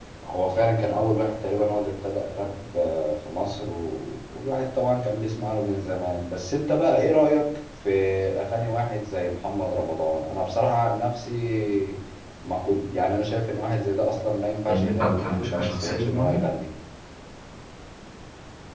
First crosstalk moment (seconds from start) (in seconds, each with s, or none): 14.7 s